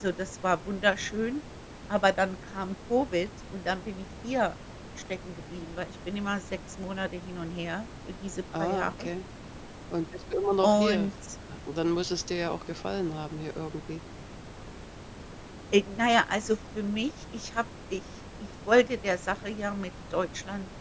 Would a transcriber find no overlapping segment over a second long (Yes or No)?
Yes